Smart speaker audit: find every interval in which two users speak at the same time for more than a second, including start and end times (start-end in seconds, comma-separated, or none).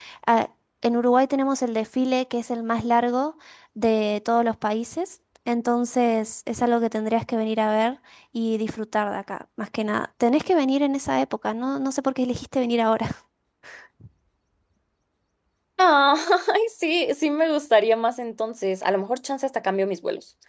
none